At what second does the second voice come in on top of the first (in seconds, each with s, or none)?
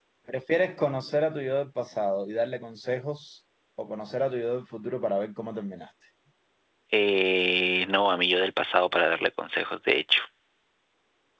none